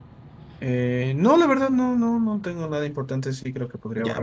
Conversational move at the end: taking over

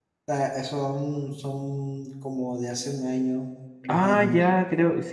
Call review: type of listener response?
taking over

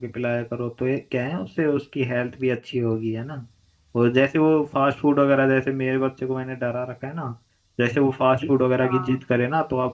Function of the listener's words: listening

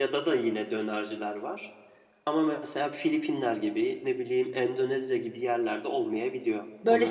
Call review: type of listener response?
taking over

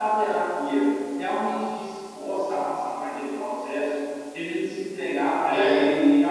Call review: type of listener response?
listening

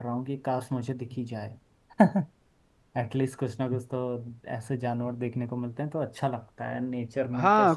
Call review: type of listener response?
taking over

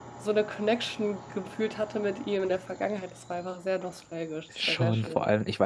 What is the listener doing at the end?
taking over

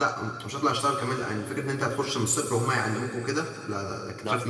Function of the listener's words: listening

